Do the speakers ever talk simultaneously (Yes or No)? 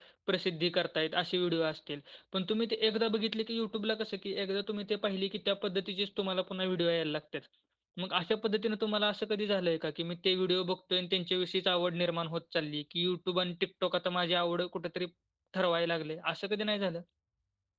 No